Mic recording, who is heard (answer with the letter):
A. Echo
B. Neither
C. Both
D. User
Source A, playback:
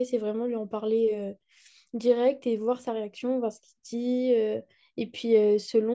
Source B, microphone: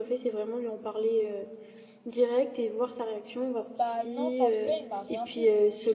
C